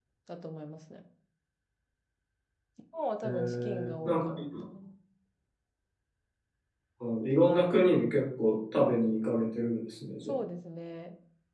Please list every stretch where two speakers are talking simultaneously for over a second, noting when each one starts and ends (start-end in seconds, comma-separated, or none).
3.2-4.4